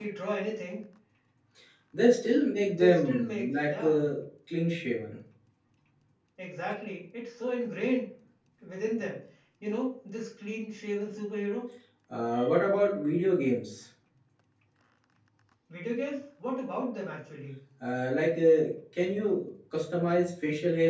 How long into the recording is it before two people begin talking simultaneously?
3 s

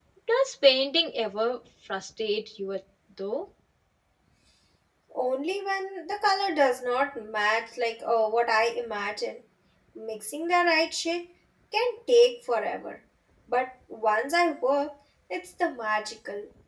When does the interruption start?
none

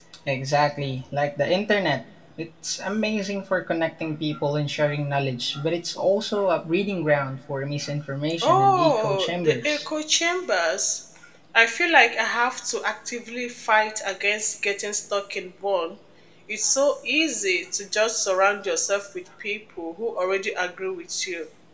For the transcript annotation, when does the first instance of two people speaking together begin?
8 s

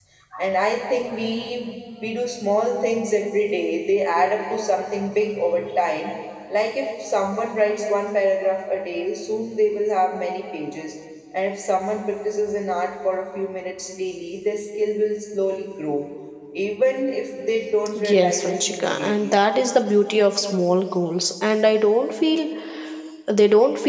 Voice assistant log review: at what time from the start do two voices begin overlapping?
18 s

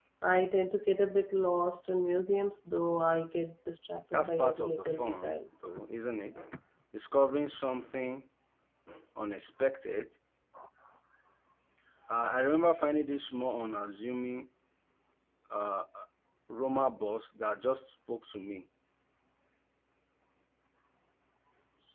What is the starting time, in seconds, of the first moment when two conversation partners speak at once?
4 s

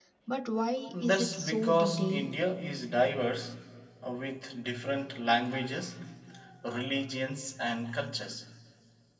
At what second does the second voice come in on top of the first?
1 s

